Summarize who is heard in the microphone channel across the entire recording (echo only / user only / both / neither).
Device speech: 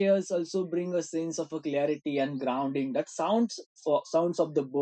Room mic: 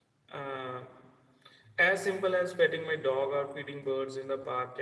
user only